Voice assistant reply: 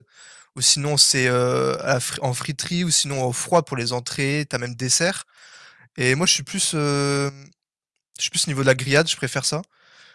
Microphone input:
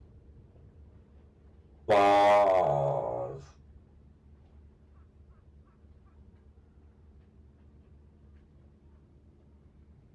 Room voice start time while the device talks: 1.9 s

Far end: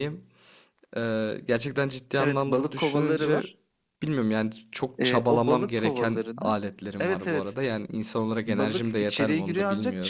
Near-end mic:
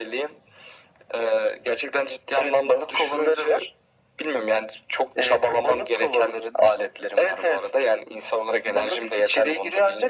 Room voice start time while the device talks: none

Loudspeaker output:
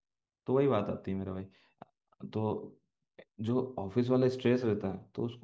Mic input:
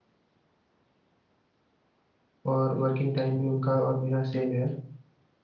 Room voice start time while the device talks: 2.5 s

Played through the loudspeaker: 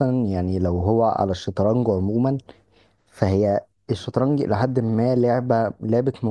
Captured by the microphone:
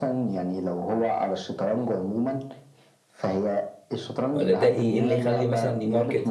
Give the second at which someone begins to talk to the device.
4.3 s

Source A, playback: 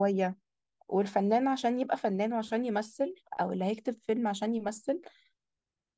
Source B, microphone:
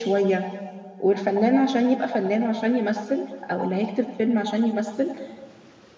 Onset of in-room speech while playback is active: none

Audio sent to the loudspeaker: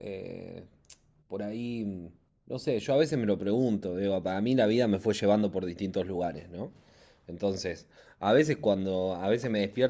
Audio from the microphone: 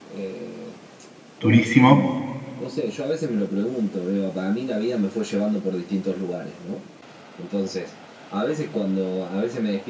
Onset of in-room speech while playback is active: 1.4 s

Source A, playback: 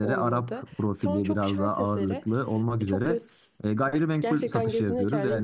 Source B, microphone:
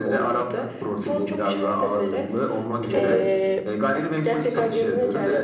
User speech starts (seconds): 2.9 s

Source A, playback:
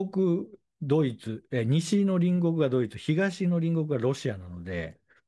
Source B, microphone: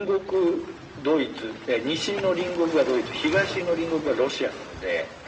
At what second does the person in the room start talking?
none

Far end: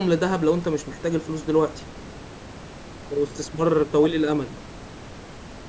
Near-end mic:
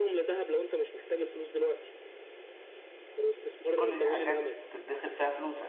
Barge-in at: 3.7 s

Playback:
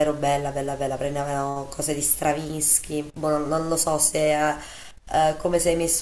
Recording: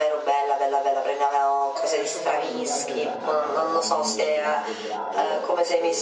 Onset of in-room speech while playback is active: 1.7 s

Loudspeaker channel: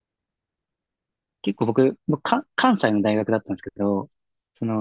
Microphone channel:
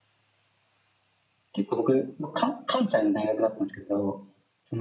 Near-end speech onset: none

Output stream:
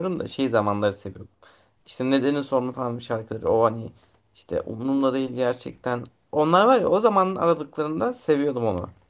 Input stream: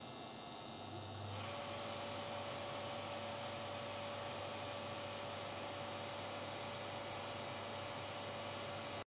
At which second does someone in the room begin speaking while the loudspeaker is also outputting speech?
none

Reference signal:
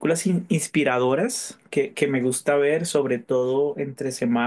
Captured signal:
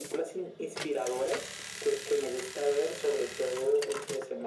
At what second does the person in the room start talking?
none

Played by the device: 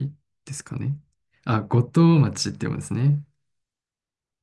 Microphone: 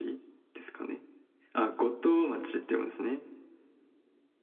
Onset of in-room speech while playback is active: none

